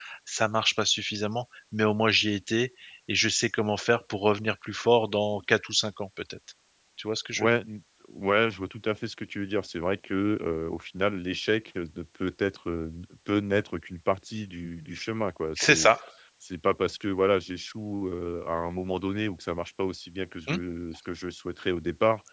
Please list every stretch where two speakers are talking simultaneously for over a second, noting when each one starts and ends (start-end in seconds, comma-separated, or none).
none